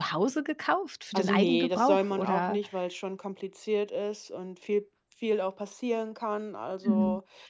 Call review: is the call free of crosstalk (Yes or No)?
No